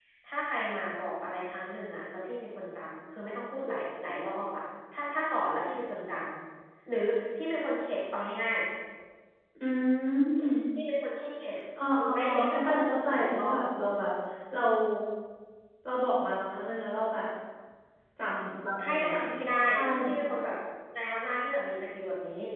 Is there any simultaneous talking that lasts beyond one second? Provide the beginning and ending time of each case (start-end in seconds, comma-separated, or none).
12.1-13.6